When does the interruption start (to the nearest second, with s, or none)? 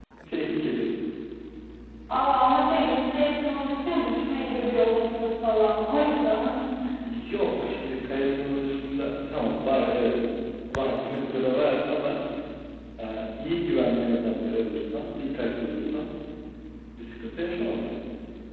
none